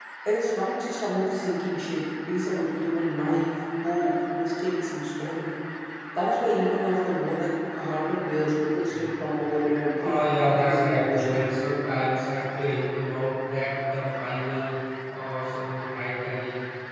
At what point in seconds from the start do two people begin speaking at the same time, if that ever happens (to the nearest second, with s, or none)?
10 s